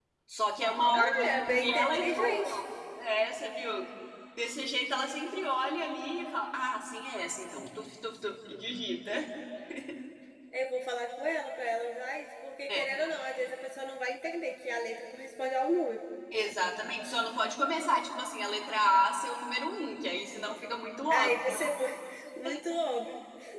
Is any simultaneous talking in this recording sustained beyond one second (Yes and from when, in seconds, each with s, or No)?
Yes, from 0.9 s